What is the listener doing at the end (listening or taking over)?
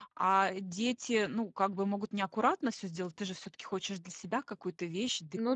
listening